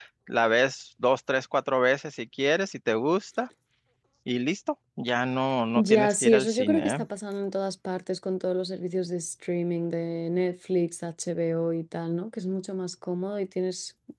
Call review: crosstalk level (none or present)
present